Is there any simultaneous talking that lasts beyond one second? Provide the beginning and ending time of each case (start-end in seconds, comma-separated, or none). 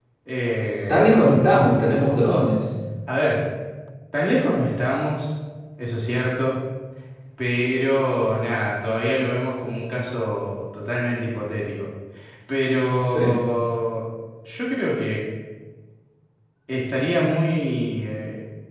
none